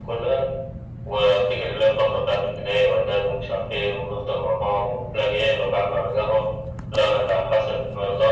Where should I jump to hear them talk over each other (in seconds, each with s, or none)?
none